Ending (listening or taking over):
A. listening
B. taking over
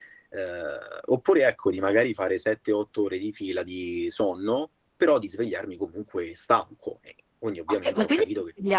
B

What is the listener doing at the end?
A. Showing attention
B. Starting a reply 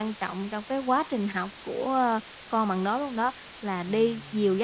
A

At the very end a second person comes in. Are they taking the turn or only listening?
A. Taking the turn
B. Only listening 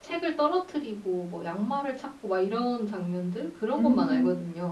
A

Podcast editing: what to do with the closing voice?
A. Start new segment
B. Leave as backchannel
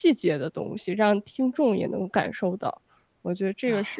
A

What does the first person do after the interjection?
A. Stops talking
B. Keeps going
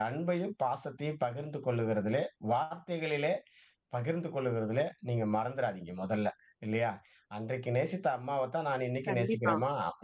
B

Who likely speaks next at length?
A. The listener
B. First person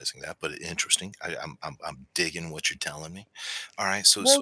A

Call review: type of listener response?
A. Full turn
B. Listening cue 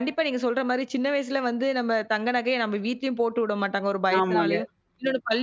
B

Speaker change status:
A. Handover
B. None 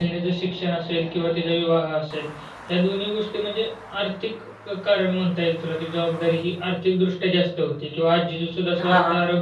B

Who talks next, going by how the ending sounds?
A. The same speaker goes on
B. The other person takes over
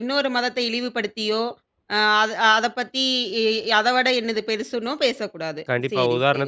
B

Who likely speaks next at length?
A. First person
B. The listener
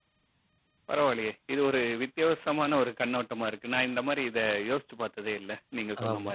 B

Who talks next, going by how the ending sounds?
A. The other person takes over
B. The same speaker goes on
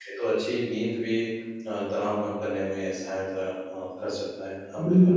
A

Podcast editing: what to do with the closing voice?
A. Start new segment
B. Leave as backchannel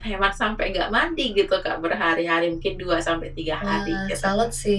A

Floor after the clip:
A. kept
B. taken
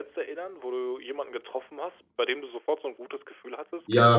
B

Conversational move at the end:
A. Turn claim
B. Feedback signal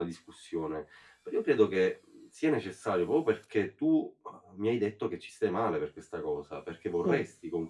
B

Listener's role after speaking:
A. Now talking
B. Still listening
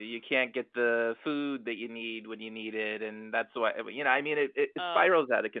B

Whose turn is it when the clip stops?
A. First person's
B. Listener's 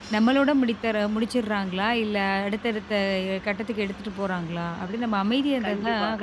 B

